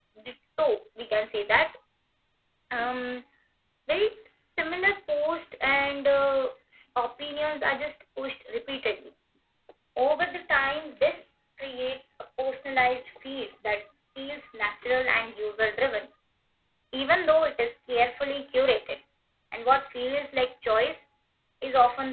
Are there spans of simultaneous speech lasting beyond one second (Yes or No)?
No